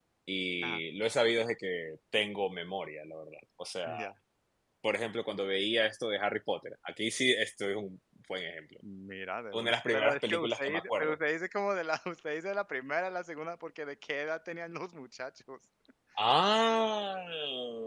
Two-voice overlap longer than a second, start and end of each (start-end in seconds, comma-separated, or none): 9.5-11.2